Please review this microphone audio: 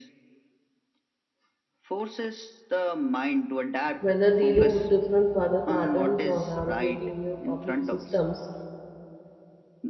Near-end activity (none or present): present